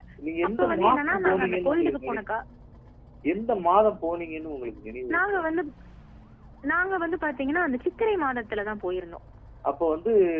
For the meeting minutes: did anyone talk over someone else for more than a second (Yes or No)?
Yes